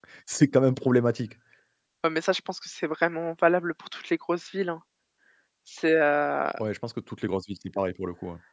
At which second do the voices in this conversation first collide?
none

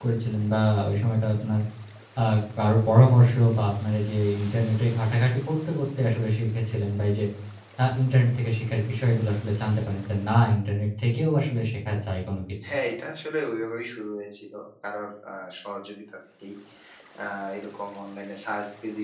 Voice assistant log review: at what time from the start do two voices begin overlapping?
none

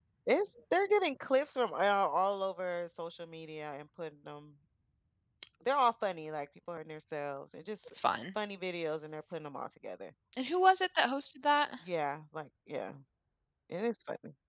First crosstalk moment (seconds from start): none

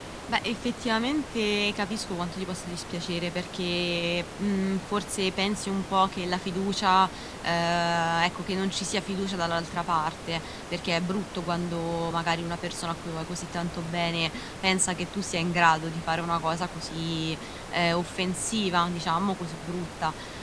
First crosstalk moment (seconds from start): none

